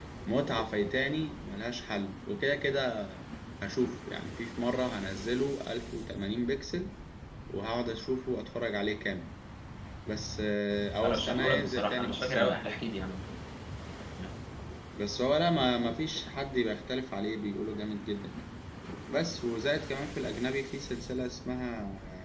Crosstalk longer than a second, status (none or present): present